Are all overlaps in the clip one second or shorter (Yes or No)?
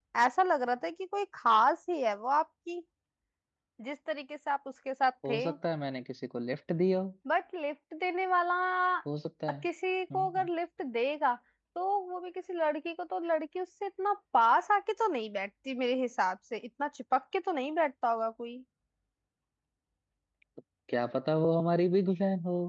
Yes